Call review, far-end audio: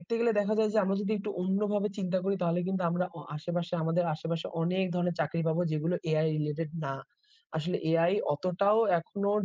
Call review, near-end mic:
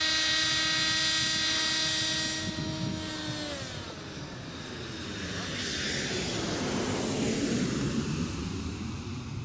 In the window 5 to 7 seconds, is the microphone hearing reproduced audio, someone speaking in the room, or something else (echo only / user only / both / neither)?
neither